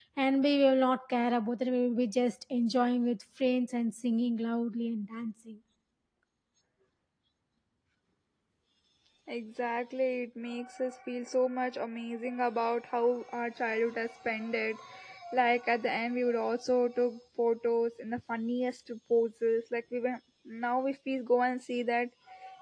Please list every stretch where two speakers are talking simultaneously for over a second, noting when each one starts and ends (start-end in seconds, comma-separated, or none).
none